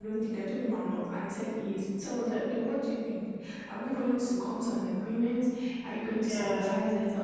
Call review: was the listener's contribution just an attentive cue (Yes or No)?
Yes